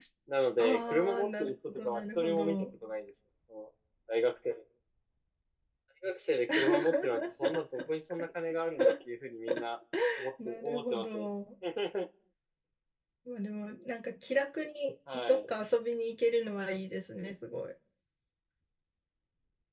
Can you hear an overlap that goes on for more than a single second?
Yes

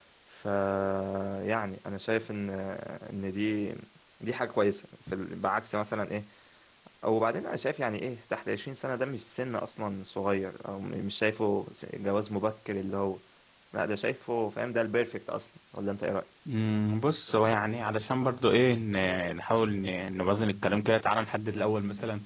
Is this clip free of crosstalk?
Yes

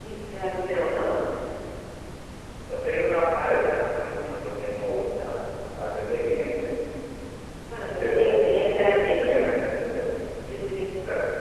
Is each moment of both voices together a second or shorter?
No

